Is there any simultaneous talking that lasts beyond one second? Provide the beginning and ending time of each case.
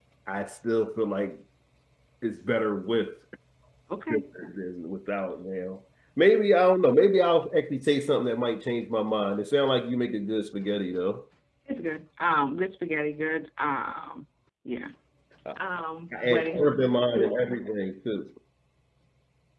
16.2-17.6

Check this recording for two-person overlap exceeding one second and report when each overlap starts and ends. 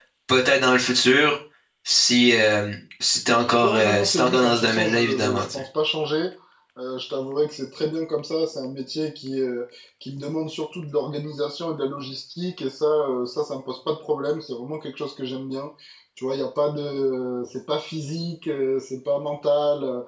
3.6-5.6

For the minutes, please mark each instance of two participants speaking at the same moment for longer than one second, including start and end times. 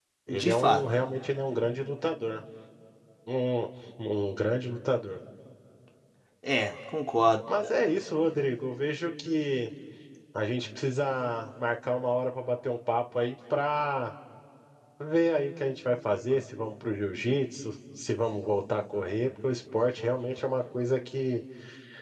none

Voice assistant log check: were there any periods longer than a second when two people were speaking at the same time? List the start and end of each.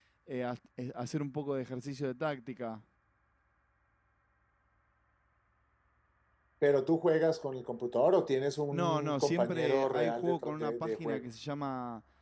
8.7-11.2

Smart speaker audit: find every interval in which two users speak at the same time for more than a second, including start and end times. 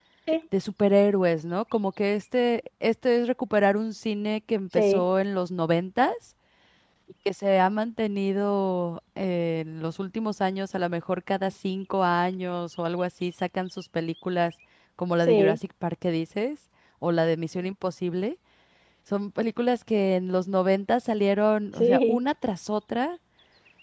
none

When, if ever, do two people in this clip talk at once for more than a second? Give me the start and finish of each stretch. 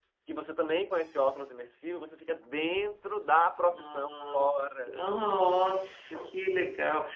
3.7-5.0

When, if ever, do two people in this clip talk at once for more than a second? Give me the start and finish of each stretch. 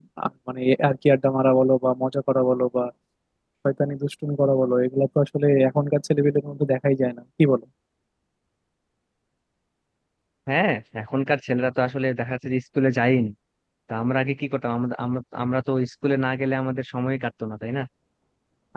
none

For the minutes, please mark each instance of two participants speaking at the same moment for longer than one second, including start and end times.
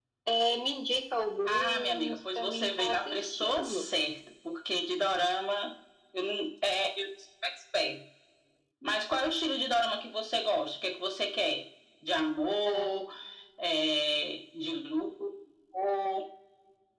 1.4-3.9

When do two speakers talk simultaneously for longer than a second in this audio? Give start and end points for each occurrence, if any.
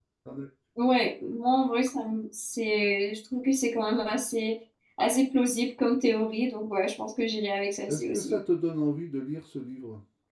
none

